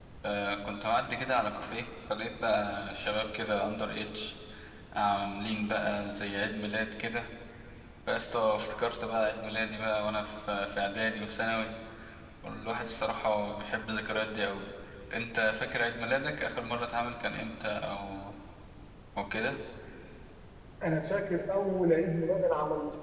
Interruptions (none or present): none